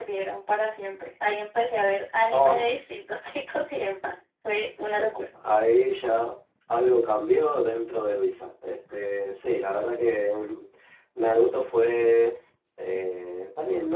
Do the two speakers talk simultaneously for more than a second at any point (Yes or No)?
No